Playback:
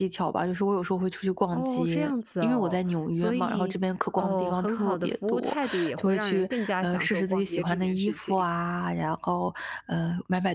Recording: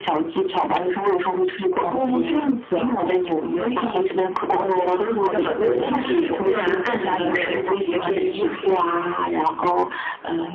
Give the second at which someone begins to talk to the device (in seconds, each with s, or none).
5.3 s